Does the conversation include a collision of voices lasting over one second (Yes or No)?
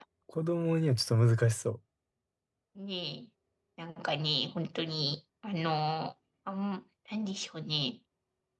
No